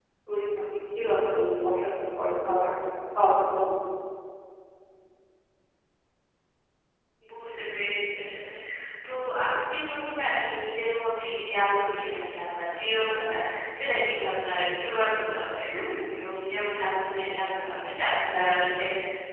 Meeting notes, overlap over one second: none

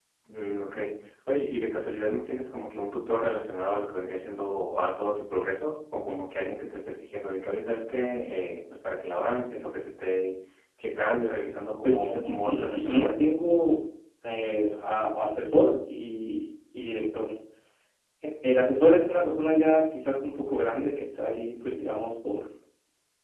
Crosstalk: present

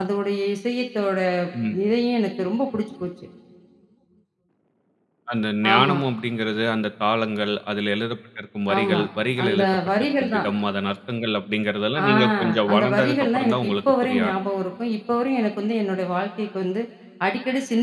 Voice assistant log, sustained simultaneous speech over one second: present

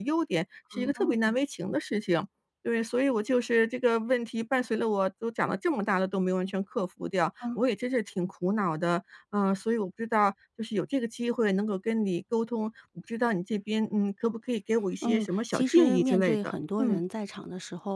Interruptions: present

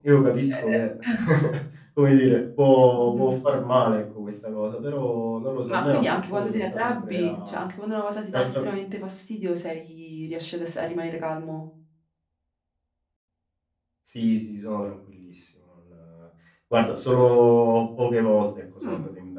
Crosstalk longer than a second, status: present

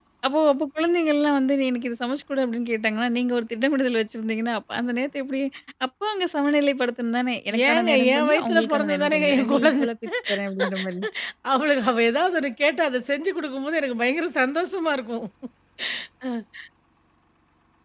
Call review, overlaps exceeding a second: present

